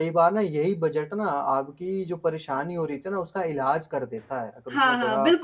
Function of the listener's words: taking over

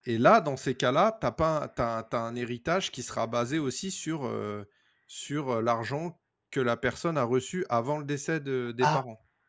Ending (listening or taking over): taking over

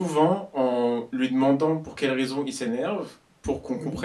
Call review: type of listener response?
listening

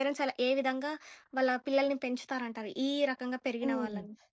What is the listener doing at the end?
taking over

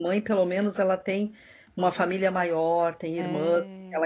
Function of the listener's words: listening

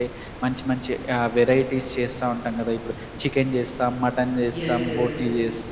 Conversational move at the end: listening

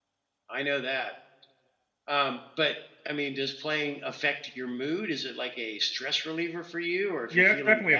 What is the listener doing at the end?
taking over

